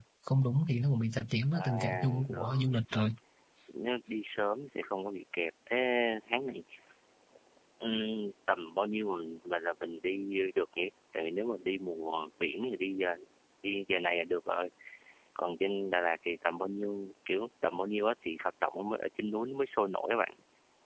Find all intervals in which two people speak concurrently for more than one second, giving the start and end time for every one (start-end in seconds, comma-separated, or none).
1.5-3.0